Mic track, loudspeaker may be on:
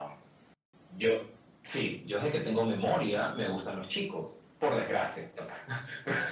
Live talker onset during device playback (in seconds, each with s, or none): none